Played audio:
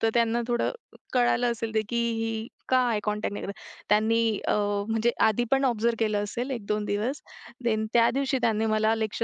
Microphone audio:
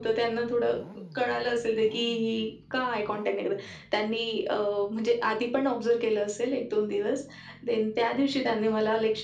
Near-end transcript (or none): none